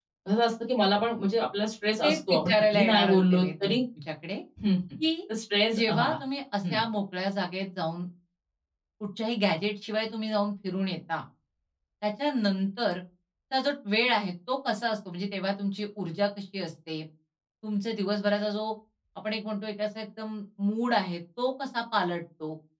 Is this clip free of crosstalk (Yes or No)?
No